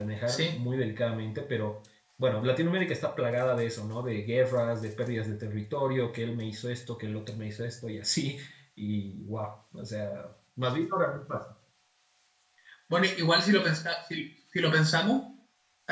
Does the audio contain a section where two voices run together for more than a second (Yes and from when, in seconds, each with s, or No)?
No